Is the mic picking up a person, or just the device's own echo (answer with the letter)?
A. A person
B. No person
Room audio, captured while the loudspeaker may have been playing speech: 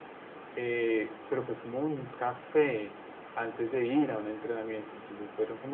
B